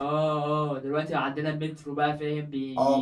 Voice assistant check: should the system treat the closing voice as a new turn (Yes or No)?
Yes